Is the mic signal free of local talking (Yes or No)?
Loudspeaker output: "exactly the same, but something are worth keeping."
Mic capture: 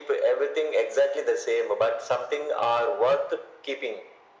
Yes